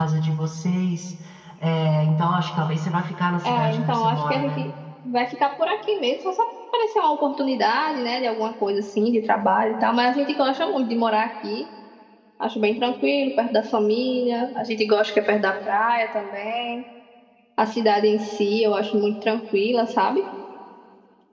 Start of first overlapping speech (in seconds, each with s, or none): 3.4 s